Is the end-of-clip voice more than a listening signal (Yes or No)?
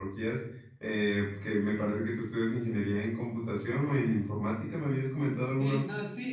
Yes